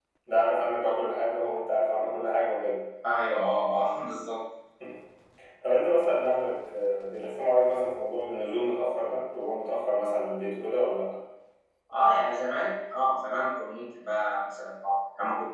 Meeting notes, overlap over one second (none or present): none